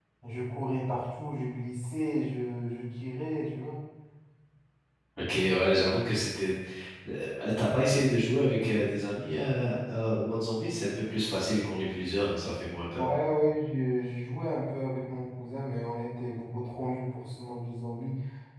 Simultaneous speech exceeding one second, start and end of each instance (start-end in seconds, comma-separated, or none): none